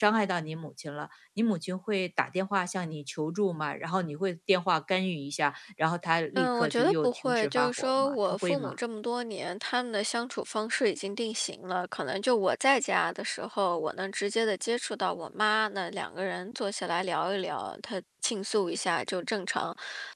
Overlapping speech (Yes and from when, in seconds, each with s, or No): Yes, from 6.4 s